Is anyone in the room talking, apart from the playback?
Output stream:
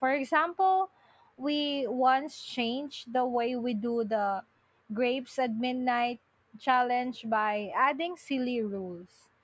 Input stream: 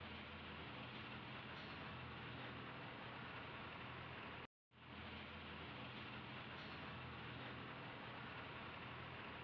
No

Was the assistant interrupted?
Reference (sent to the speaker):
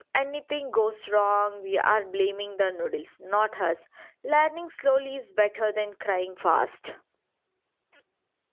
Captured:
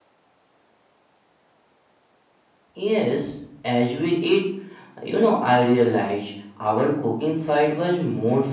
Yes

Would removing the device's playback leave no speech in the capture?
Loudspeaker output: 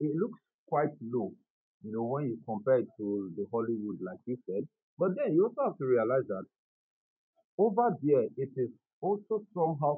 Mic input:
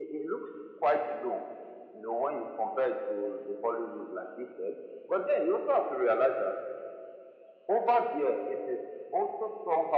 Yes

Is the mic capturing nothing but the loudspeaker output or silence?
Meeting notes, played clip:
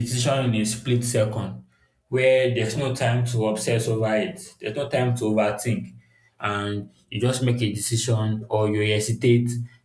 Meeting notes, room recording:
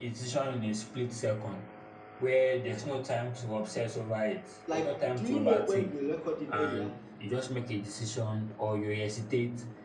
No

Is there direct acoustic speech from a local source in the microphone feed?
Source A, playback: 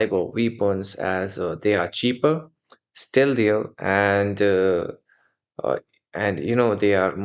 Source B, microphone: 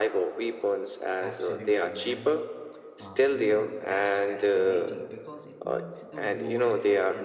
Yes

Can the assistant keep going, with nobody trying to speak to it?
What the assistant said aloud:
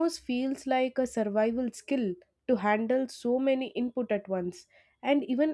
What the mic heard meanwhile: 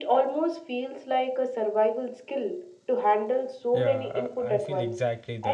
No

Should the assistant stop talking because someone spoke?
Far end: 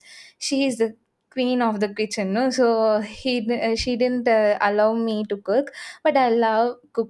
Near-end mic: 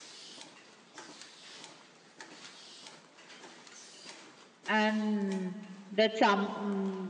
Yes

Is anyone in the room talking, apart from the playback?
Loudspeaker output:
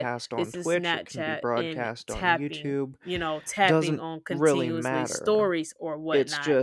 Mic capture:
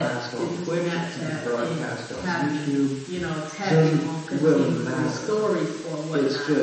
No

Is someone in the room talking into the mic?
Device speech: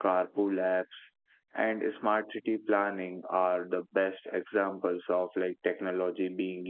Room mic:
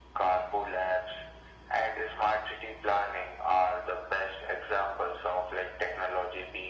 No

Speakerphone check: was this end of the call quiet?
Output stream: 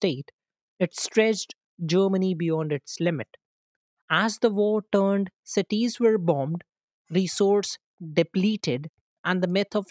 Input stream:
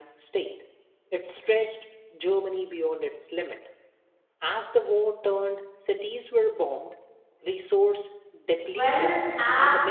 No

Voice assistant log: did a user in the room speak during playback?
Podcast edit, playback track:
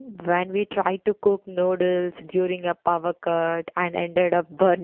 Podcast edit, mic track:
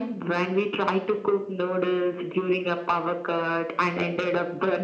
No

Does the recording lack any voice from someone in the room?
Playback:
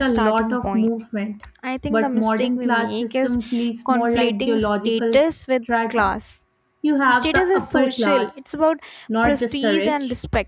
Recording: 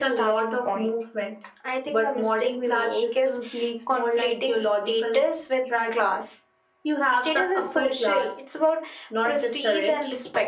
Yes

